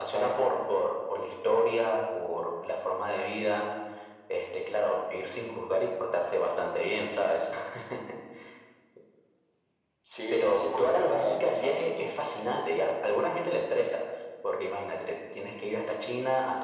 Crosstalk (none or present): present